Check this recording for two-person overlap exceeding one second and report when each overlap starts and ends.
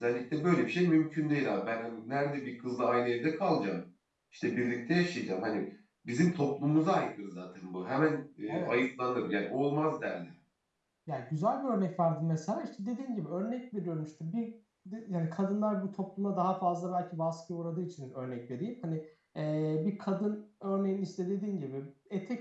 none

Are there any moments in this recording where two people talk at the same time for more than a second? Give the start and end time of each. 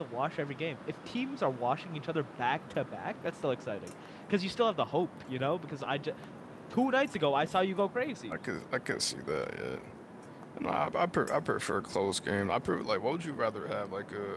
none

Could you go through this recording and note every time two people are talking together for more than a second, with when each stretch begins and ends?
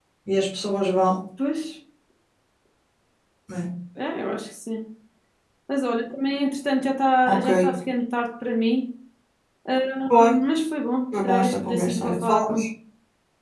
11.2-12.6

